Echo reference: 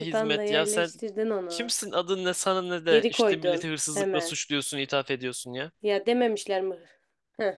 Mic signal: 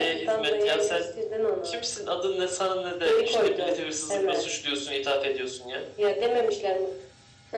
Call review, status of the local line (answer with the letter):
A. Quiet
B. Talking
A